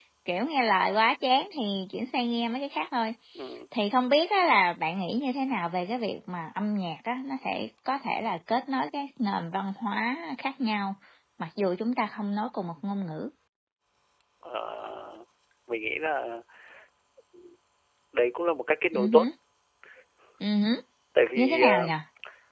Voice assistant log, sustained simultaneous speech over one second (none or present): none